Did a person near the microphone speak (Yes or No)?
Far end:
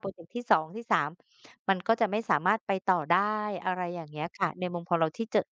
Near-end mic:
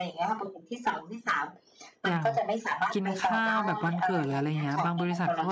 Yes